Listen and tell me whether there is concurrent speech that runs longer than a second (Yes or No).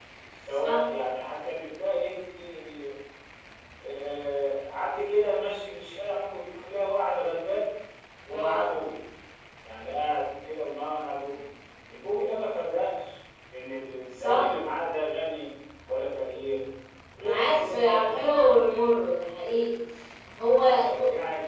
Yes